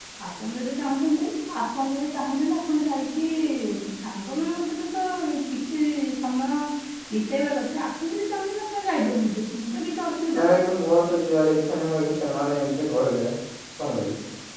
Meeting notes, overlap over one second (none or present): none